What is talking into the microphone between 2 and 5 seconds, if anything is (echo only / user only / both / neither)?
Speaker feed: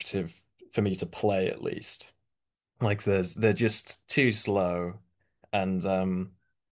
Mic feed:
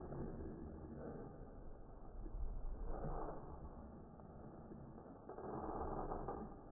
neither